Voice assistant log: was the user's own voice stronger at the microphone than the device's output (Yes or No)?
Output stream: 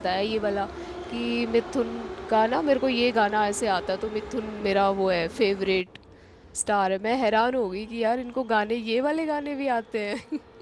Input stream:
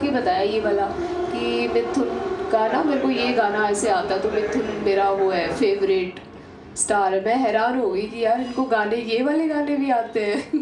No